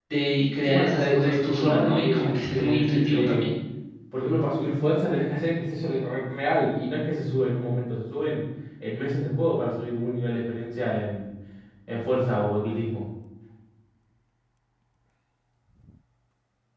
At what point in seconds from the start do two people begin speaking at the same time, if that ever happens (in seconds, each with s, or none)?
0.6 s